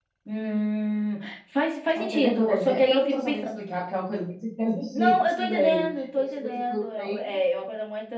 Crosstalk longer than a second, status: present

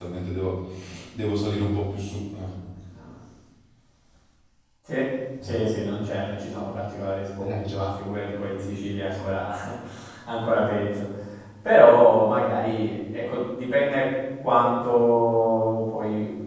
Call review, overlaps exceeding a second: none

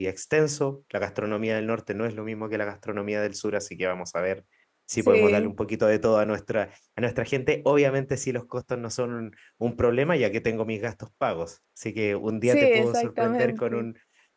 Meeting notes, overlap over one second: present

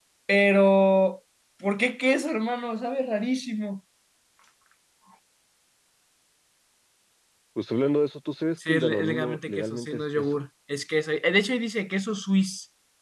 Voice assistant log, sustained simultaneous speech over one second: present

